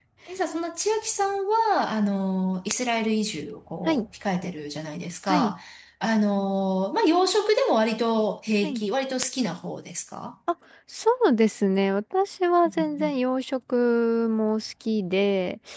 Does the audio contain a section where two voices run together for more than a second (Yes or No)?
No